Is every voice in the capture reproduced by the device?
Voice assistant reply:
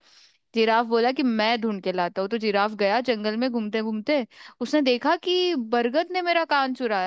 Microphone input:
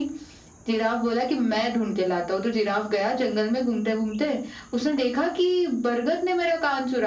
Yes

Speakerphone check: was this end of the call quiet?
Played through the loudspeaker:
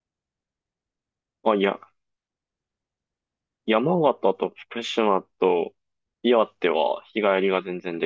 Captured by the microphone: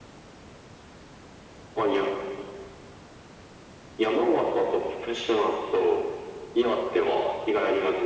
Yes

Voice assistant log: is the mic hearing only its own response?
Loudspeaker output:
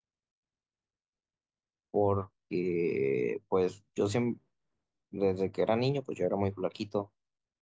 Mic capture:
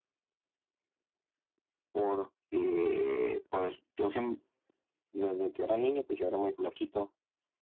Yes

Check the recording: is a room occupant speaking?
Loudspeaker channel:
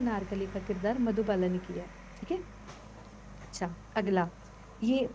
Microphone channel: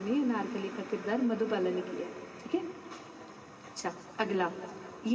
No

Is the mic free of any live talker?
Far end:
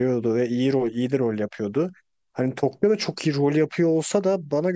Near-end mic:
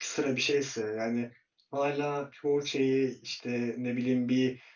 No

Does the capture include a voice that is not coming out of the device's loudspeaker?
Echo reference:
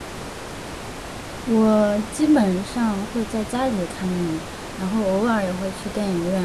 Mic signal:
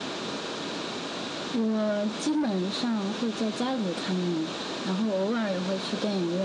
No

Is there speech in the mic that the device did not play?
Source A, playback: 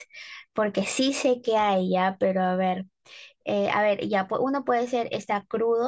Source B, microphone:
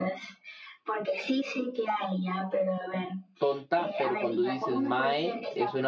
Yes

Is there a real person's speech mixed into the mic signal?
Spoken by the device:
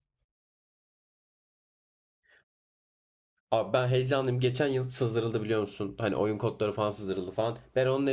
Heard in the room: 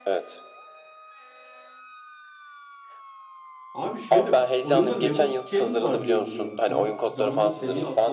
Yes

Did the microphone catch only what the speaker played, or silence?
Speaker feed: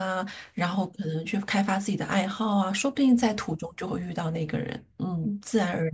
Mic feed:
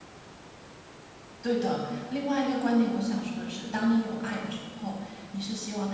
No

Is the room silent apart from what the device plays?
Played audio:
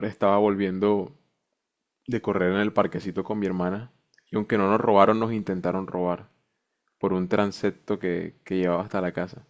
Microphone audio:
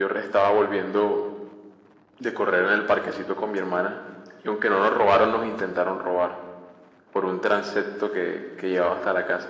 Yes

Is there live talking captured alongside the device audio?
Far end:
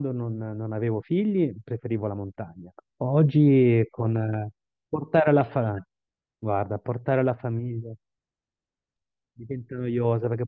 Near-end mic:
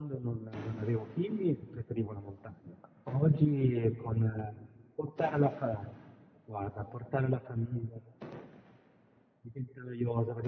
No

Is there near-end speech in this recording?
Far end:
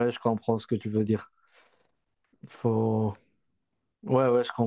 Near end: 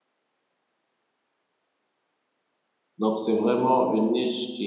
Yes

